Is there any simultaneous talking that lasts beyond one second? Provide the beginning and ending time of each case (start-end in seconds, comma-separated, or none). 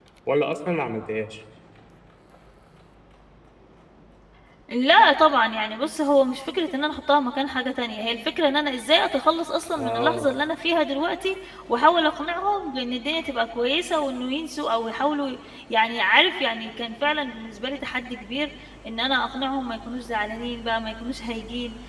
none